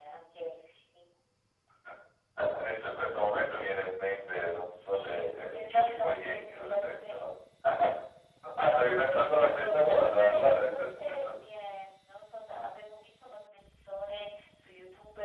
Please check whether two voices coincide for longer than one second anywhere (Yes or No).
Yes